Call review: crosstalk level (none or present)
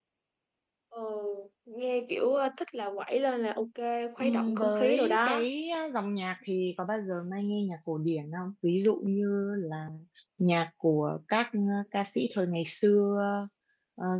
present